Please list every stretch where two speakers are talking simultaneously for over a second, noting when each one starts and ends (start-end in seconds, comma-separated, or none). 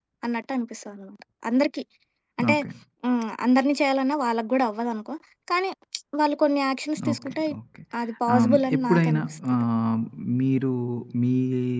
8.3-9.6